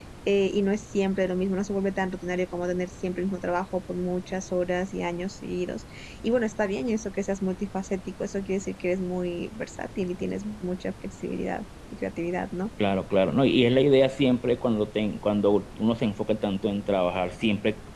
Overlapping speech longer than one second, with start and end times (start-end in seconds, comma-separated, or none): none